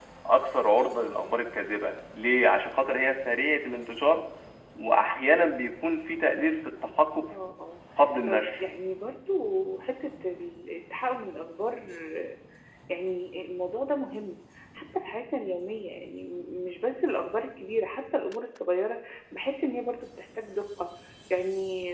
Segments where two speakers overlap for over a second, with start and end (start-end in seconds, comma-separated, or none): none